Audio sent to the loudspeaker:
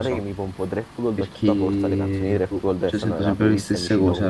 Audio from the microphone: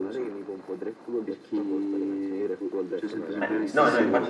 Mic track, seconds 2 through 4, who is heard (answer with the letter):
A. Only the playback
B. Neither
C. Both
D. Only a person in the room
C